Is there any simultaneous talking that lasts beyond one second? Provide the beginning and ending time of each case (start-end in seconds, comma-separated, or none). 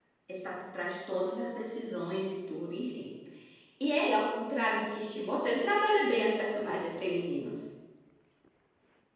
none